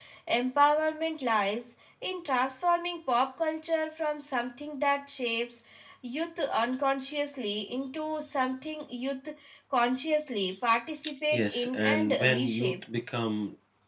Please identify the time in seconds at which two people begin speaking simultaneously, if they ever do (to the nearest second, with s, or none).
11 s